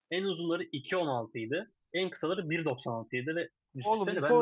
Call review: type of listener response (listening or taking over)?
taking over